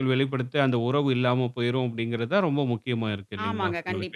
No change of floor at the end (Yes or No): No